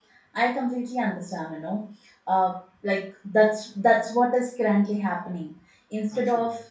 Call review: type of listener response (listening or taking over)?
listening